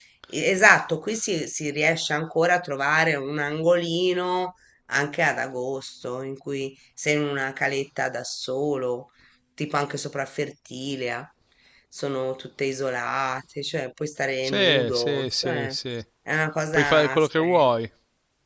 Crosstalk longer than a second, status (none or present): present